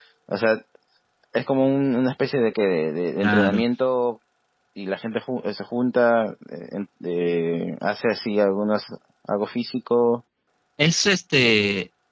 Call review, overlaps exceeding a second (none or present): none